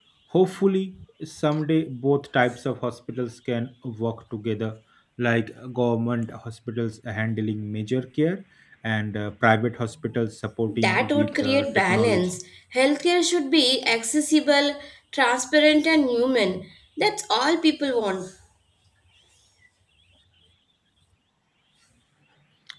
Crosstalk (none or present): present